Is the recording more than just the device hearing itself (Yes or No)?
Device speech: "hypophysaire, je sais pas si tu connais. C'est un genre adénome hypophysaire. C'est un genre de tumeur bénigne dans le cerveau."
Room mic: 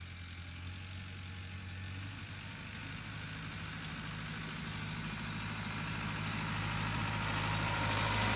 No